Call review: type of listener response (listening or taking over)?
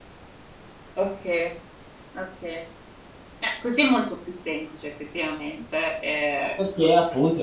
taking over